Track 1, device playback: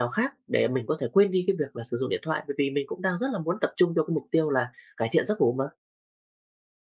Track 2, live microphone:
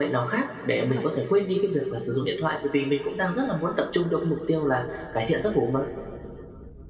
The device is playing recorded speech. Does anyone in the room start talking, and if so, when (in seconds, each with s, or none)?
0.7 s